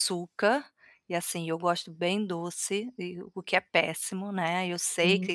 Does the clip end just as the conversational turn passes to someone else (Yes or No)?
No